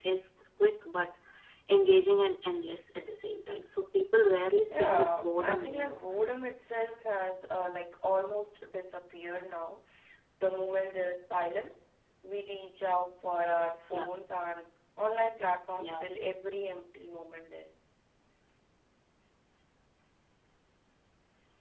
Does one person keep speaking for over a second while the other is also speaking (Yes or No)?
Yes